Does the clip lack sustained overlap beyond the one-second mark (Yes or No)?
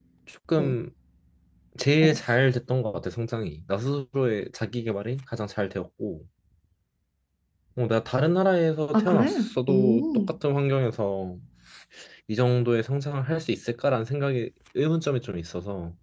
No